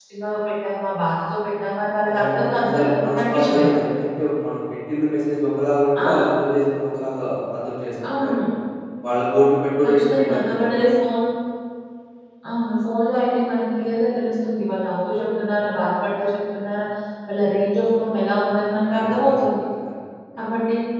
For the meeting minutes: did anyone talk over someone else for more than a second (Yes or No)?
Yes